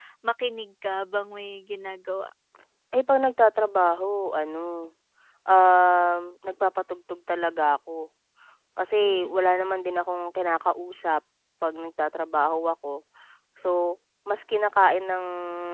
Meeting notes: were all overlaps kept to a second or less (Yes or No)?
Yes